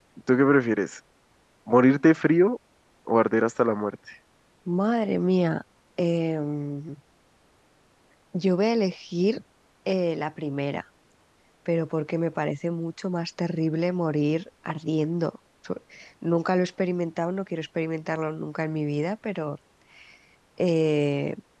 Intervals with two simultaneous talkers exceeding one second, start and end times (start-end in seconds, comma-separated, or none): none